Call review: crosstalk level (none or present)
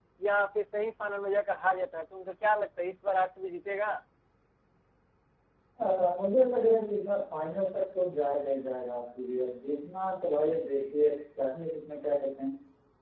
none